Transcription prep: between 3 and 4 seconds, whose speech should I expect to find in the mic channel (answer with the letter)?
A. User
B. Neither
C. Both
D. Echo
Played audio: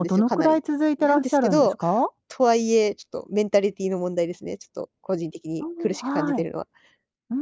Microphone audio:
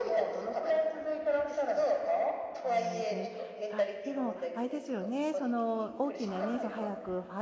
C